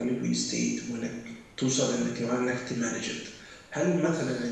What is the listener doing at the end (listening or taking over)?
listening